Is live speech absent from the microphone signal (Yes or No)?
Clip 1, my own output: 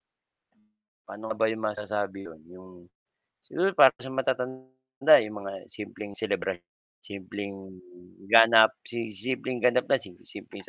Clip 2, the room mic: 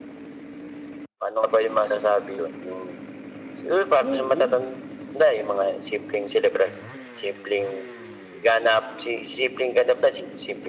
No